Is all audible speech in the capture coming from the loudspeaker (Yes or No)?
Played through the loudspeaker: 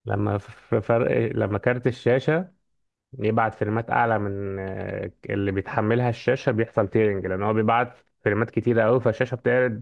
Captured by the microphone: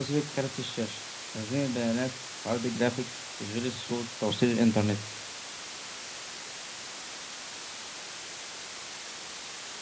No